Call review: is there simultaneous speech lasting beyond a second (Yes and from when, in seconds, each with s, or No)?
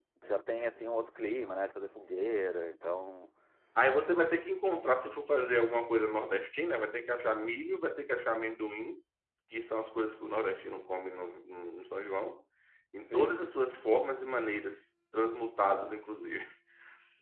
No